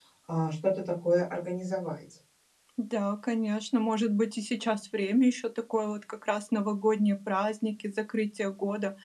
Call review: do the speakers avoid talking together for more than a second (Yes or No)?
Yes